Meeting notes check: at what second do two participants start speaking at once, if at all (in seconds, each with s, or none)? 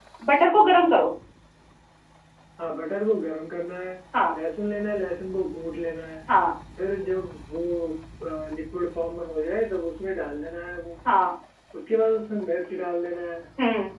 none